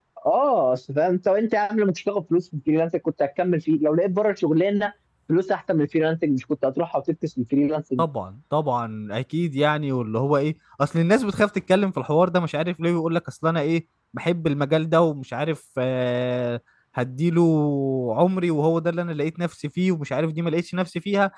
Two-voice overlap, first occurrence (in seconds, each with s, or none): none